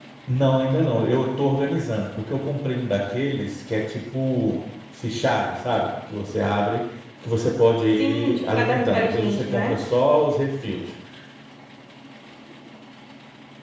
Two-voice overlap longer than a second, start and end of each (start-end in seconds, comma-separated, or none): 8.0-9.8